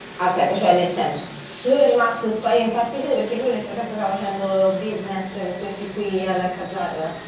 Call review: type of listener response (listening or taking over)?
taking over